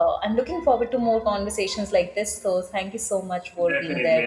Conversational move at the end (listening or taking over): taking over